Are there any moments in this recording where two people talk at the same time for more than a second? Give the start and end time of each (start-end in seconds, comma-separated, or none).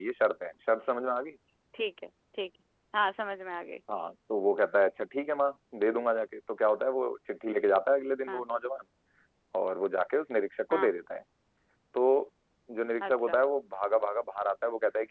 none